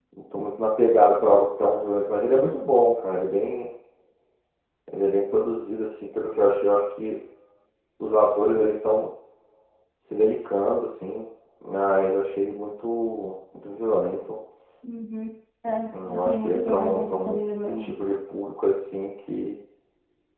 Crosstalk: present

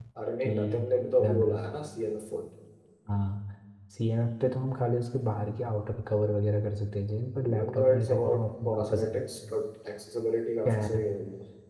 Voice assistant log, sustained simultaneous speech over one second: present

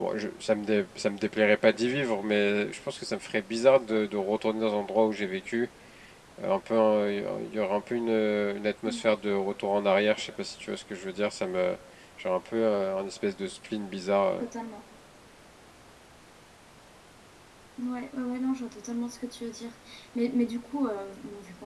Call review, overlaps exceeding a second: none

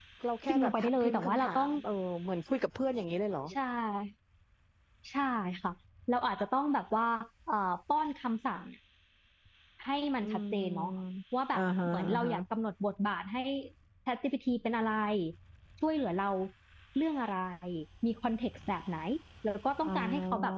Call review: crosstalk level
present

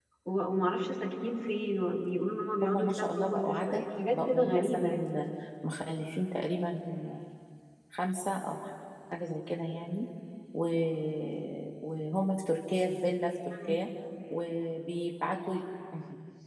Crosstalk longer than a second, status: present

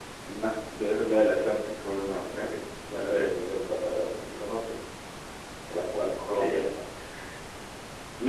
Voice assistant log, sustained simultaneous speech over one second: none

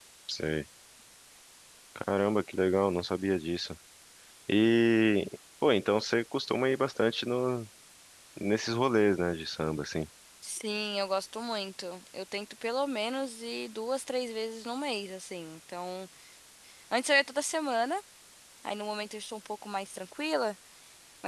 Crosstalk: none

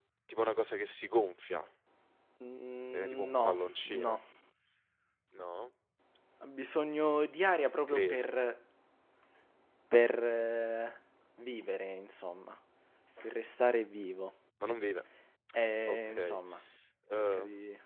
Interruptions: present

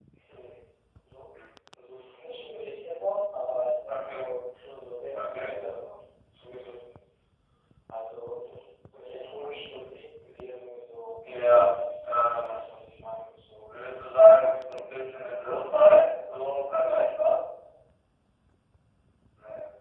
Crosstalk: present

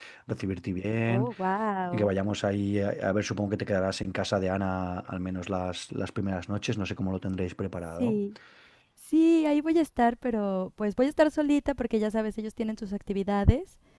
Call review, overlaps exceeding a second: none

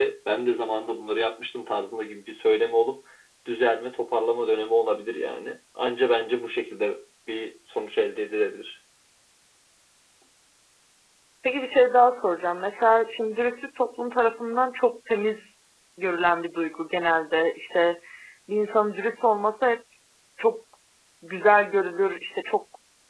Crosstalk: none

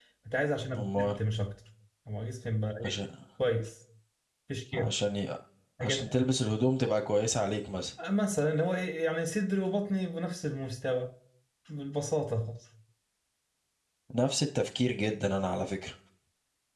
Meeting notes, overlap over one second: none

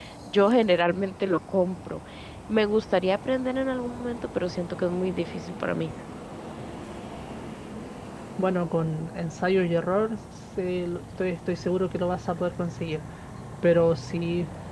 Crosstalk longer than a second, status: none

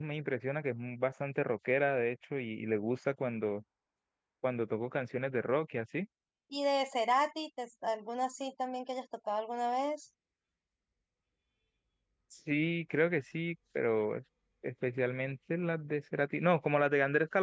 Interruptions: none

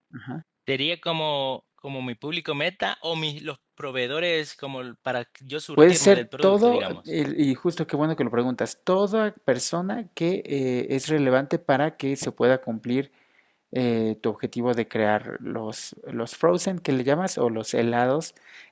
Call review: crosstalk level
present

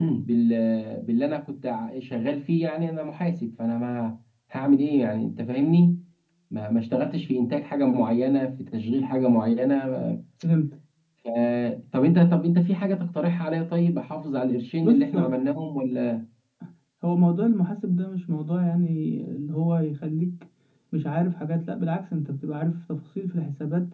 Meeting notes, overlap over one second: none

